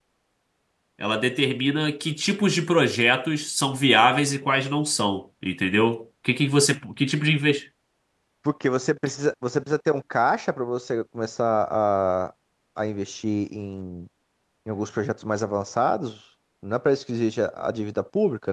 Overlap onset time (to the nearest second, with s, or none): none